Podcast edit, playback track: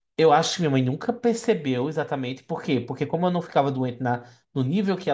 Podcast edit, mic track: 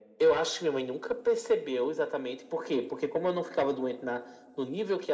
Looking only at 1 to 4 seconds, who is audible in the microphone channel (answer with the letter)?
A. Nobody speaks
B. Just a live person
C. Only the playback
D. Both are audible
C